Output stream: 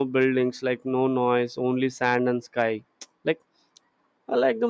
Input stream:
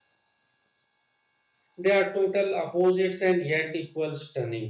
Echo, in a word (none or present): none